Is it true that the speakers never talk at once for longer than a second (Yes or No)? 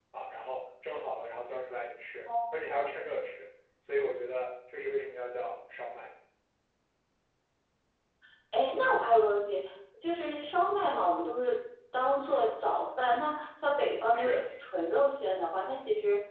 Yes